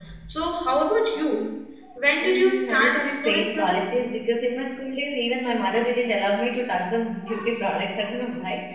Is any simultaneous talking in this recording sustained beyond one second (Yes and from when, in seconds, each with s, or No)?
Yes, from 2.2 s